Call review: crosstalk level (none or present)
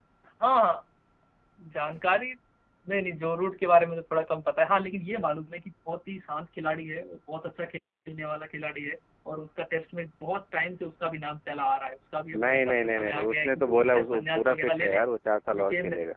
present